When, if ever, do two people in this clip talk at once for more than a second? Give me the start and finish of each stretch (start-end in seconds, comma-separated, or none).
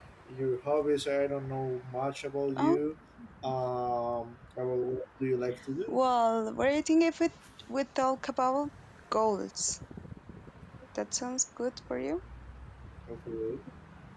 none